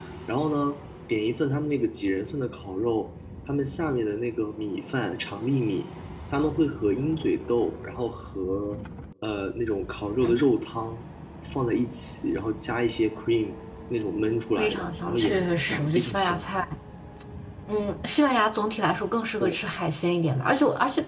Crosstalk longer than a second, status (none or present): present